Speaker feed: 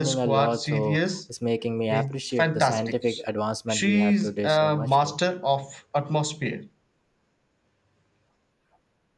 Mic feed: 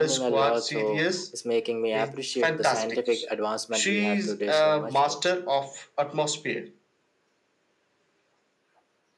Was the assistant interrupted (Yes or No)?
No